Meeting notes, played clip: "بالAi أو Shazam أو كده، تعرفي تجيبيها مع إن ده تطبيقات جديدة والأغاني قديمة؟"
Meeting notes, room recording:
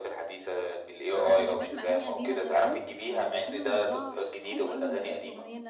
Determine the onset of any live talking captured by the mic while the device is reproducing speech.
1.1 s

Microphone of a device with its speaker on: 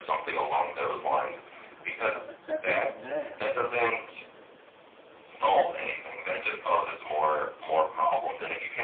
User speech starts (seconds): 2.1 s

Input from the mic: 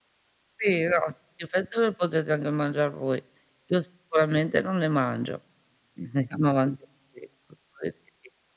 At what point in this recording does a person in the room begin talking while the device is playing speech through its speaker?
none

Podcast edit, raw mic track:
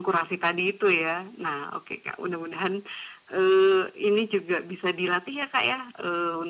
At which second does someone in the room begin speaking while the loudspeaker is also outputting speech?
none

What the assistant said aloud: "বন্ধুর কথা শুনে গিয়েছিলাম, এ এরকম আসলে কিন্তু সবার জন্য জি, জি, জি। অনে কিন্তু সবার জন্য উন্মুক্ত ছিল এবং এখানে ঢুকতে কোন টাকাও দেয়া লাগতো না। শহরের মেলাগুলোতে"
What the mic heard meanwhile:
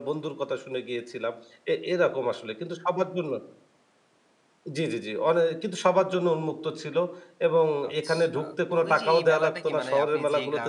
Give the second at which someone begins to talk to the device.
7.9 s

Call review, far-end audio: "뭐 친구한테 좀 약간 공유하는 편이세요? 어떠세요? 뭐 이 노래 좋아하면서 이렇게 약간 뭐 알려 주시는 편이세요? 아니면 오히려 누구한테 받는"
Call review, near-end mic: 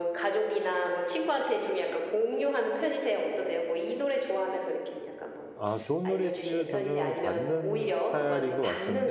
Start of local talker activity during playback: 5.5 s

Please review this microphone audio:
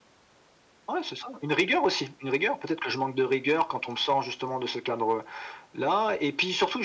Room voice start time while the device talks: none

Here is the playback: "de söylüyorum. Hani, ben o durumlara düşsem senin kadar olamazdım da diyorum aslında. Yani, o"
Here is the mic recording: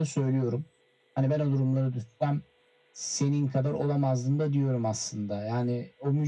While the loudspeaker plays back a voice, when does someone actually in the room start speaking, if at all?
none

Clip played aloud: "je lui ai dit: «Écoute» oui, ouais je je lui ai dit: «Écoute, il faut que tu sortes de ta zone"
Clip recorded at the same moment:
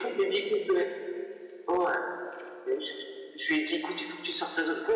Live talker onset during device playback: none

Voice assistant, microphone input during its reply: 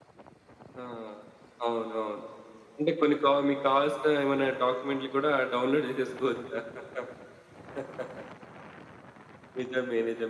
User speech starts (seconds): none

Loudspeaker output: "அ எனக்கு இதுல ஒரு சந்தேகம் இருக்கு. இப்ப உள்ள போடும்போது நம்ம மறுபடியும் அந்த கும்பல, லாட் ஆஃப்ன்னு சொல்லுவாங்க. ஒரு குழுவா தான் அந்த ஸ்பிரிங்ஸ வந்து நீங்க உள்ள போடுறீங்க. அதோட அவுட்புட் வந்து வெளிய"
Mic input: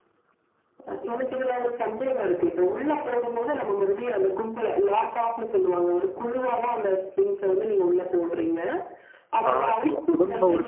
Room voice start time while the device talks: 9.5 s

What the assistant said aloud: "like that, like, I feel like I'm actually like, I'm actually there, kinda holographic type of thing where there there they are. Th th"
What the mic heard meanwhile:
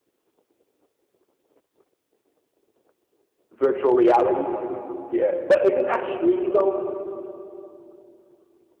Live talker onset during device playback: 3.5 s

